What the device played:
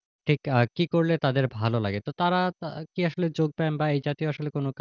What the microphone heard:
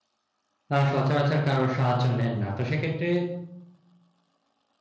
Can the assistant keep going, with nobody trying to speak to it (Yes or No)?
No